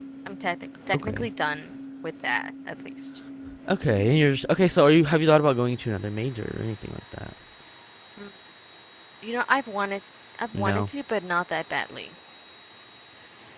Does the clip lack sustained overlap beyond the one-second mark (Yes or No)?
Yes